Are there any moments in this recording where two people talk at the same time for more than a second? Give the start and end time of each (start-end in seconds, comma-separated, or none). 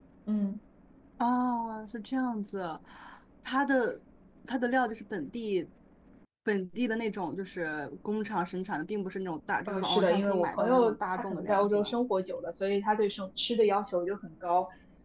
9.7-11.9